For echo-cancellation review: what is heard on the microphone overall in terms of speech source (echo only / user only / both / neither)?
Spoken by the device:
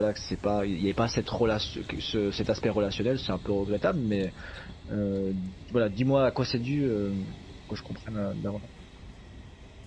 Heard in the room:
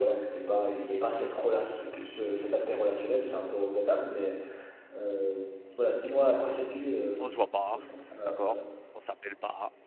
both